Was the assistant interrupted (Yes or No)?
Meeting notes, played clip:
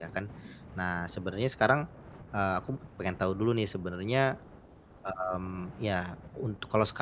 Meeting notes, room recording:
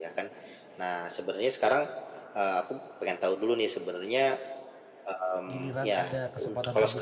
Yes